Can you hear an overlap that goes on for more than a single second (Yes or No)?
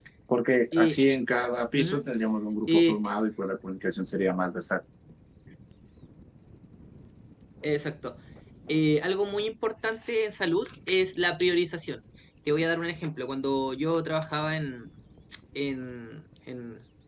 No